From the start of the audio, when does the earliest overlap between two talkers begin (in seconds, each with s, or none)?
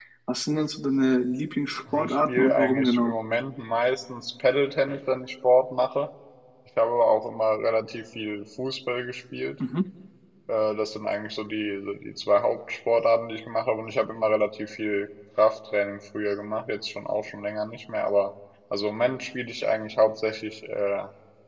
1.9 s